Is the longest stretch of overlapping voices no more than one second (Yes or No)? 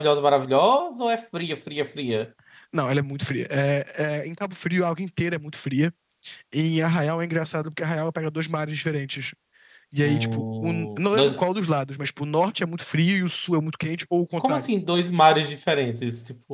No